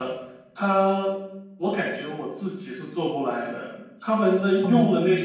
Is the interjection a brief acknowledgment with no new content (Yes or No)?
Yes